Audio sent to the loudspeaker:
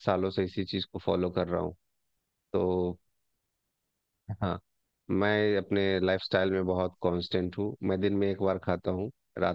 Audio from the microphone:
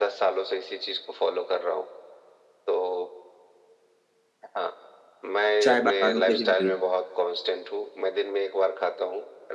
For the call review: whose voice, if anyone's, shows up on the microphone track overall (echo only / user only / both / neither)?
both